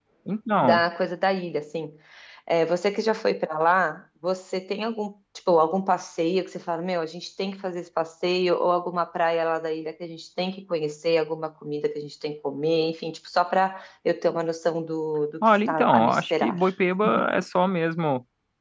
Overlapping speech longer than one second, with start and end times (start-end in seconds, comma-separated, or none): 15.4-16.6